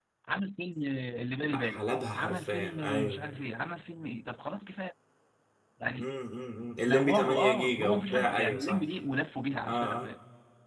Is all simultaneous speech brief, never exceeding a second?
No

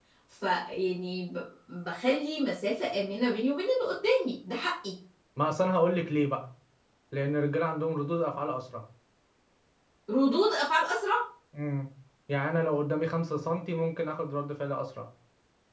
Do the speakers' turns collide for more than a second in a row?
No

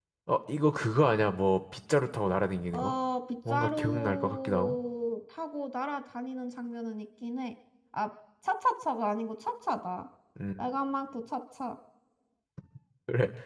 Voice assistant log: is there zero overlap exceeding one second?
No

